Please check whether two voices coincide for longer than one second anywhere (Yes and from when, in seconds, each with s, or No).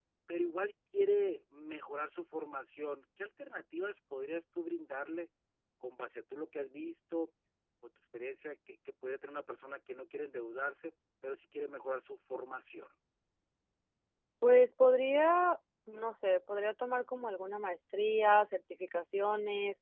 No